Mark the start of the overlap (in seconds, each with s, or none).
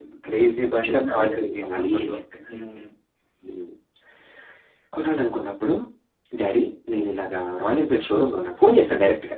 0.8 s